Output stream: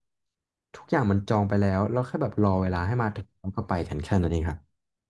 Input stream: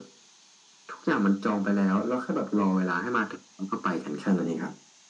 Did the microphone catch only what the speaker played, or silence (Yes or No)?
Yes